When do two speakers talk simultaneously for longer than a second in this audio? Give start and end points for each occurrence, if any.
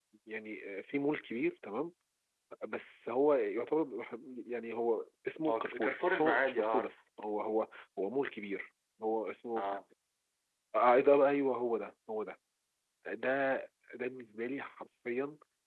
5.5-6.9

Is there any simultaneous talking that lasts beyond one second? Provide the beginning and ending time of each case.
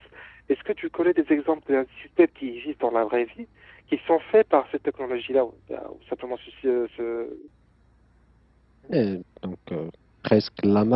none

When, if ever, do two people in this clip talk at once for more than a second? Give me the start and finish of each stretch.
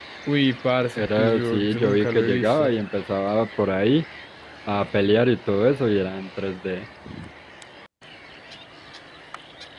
1.0-2.7

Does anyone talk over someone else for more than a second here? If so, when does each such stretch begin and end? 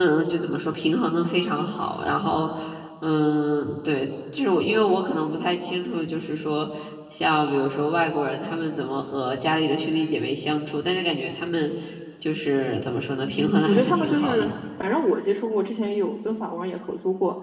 13.2-14.5

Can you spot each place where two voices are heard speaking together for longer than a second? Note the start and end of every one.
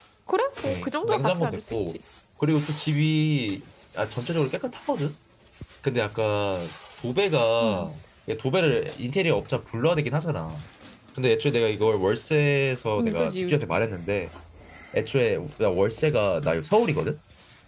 0.7-1.9

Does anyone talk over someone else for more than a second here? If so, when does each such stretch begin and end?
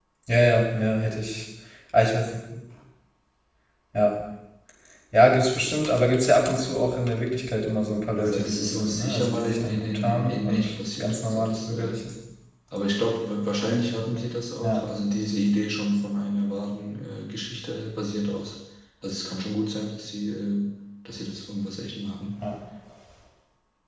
8.2-12.0

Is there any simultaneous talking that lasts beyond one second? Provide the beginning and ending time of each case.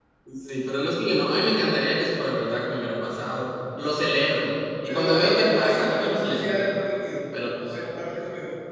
4.9-6.5

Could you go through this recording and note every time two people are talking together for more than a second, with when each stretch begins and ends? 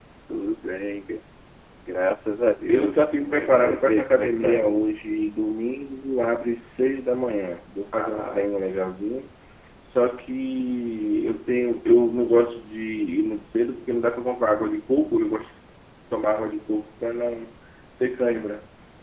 2.7-4.7

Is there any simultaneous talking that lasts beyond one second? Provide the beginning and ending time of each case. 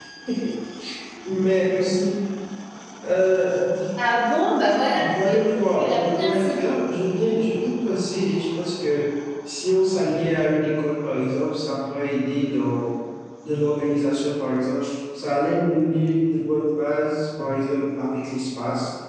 4.9-6.6

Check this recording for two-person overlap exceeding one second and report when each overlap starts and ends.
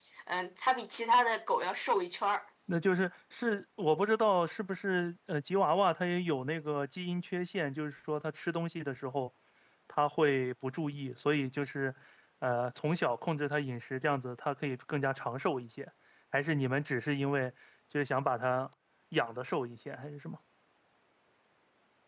none

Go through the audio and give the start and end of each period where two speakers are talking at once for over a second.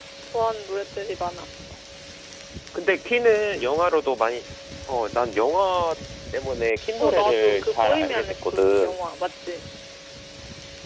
7.0-9.0

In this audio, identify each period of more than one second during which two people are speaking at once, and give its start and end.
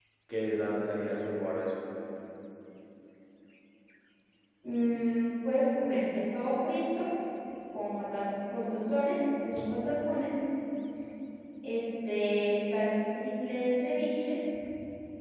none

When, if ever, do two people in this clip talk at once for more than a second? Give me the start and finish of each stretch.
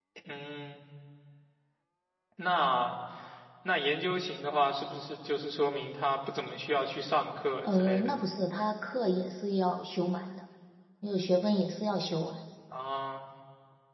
none

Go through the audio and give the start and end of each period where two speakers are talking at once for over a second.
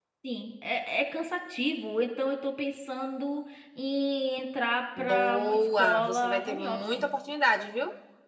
5.0-6.8

